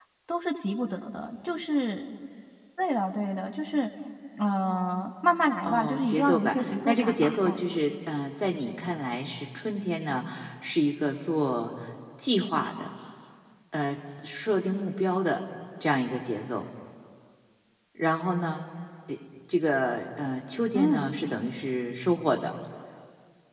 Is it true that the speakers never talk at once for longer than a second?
No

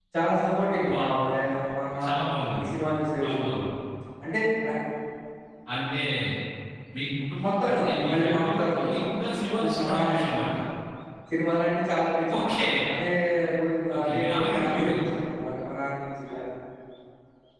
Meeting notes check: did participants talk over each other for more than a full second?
Yes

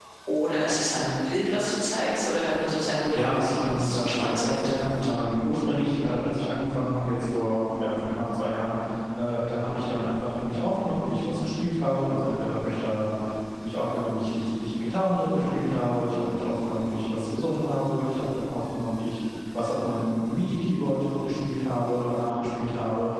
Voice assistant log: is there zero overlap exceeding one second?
No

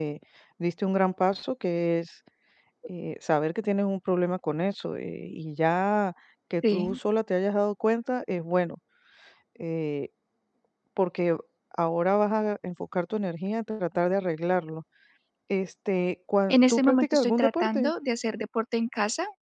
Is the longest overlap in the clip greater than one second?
Yes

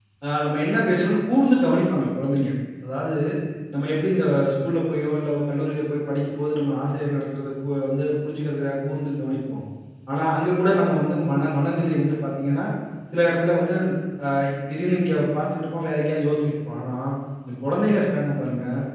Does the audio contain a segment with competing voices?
No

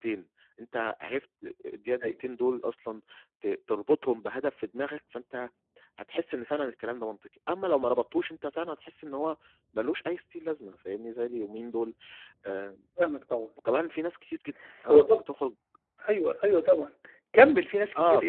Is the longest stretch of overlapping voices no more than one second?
Yes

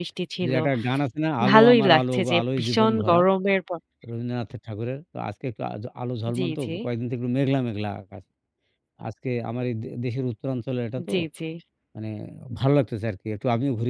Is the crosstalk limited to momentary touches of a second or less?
No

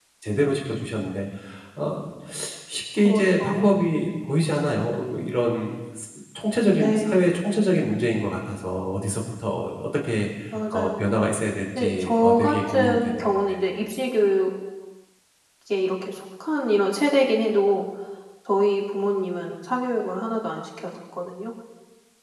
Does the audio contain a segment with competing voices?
Yes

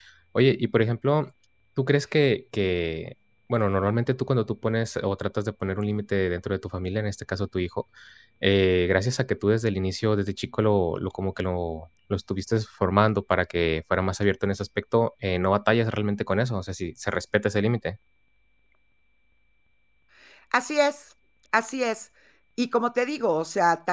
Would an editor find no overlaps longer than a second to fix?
Yes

